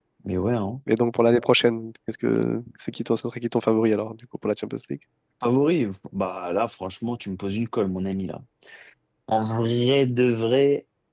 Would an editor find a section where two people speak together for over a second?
No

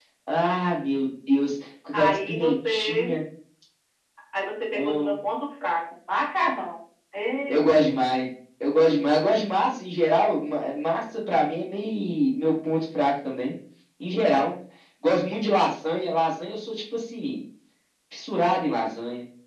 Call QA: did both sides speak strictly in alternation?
No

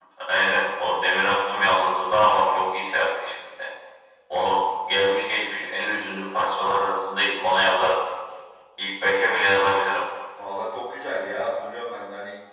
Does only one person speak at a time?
Yes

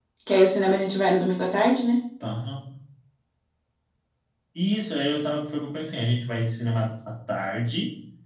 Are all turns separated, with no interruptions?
Yes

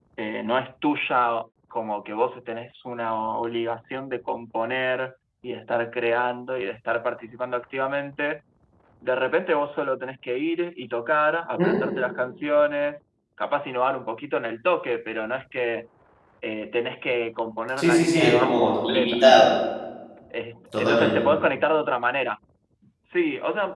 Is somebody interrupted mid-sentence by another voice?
Yes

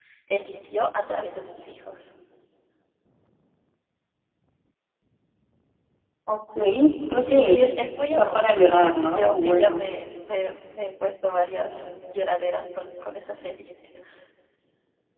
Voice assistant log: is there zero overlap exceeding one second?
No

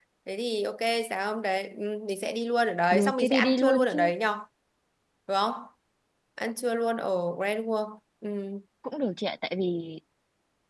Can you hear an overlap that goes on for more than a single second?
Yes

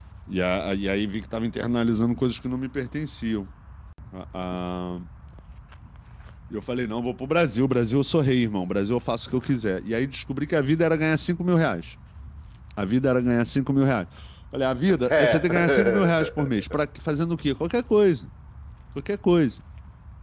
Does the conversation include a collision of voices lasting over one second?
Yes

